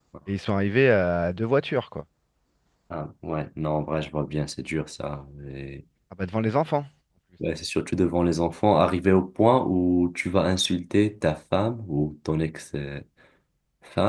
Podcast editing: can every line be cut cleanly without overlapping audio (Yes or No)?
Yes